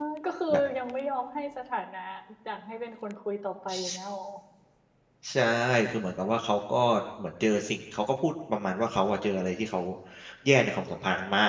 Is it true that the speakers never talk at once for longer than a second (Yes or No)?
Yes